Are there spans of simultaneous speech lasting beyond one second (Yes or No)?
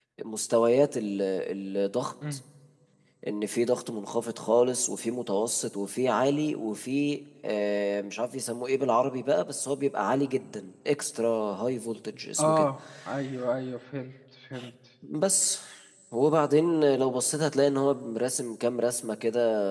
No